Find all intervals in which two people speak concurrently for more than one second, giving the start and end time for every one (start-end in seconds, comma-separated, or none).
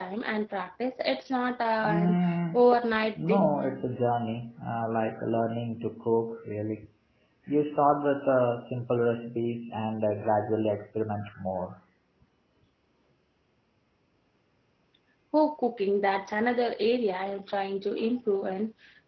none